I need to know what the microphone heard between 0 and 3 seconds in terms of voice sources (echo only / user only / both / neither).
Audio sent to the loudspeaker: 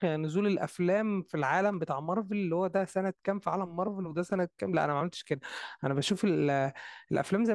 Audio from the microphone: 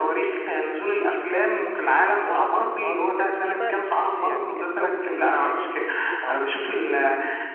both